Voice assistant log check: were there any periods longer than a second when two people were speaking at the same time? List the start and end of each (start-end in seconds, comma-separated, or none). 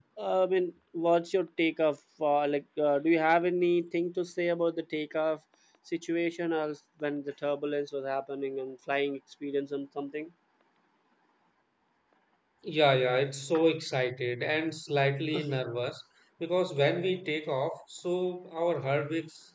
none